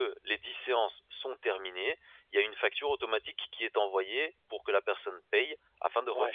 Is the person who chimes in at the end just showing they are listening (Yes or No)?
No